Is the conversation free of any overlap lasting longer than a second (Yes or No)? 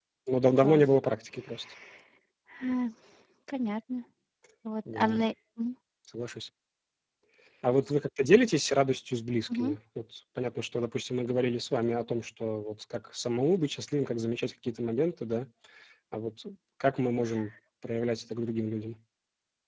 Yes